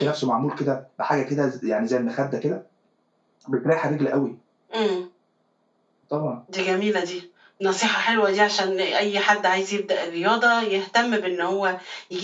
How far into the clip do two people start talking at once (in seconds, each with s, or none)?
none